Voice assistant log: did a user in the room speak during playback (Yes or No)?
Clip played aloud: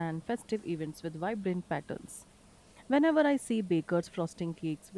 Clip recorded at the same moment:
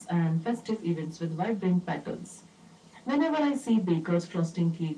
No